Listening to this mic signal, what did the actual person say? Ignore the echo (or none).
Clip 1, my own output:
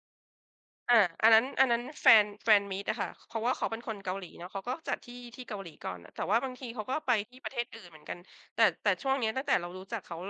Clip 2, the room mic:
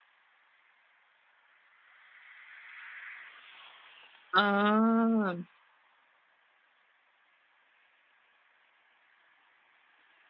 อ๋อ